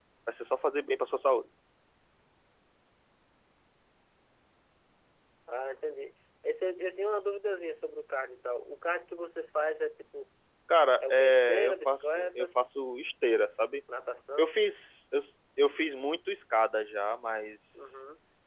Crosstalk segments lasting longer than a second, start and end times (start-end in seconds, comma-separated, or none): 11.0-12.5